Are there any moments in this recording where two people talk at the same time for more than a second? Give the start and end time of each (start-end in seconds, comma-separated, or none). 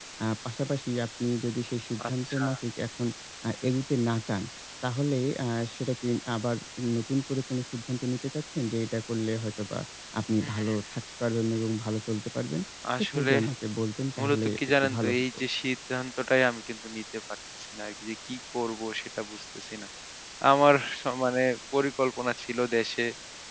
14.2-15.4